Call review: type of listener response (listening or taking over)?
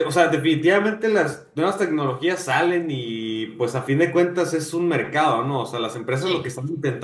listening